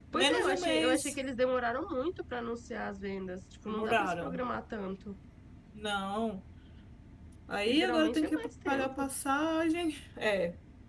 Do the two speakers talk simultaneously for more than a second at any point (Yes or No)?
Yes